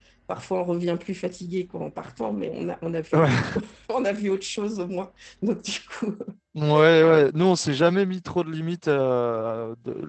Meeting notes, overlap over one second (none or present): none